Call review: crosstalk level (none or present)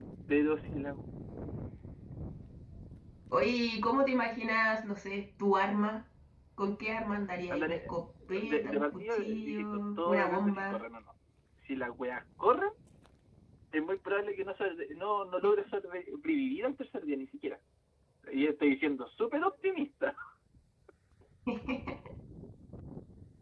present